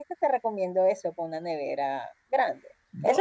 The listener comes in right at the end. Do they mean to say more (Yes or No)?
No